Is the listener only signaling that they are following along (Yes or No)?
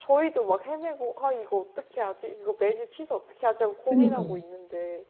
Yes